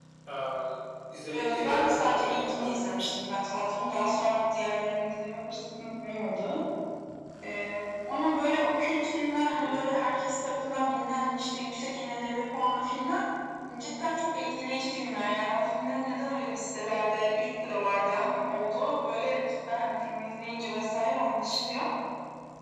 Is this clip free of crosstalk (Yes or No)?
No